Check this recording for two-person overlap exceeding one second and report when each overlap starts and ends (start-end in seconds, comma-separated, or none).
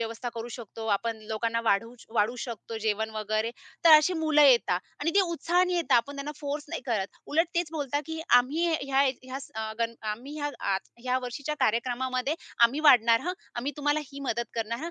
none